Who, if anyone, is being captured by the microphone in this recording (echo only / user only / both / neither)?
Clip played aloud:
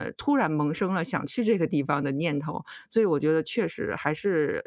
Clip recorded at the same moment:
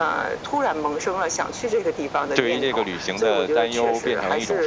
both